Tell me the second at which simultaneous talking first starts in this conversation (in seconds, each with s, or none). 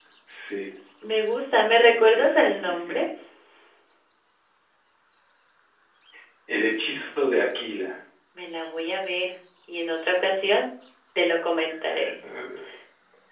1.8 s